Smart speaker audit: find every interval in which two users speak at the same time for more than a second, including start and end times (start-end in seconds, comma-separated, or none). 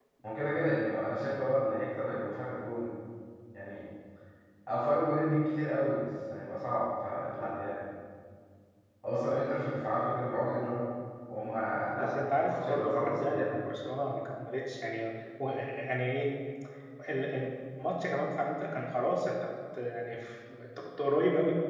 12.0-13.6